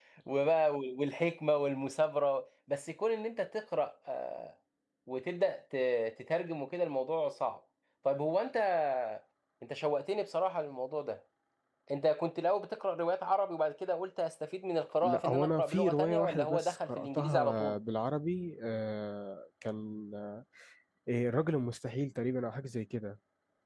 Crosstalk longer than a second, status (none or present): present